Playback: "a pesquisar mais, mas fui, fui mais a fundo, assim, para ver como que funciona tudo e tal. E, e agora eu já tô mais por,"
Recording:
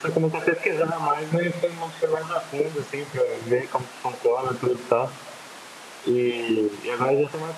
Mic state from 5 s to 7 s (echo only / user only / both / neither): echo only